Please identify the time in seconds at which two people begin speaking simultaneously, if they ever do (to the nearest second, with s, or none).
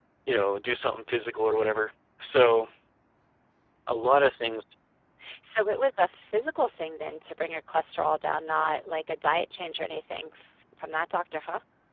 none